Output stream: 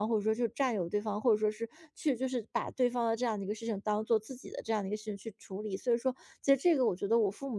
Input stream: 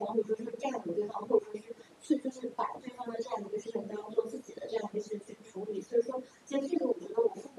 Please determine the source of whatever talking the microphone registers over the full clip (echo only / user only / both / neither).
echo only